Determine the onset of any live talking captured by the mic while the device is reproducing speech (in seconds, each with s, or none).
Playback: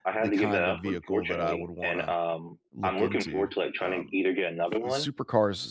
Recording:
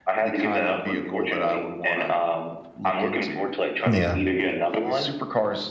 3.9 s